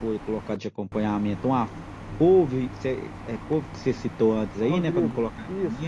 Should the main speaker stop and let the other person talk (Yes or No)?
Yes